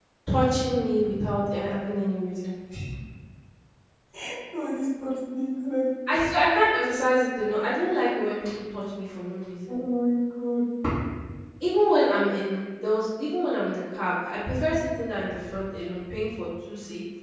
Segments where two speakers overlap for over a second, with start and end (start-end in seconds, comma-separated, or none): none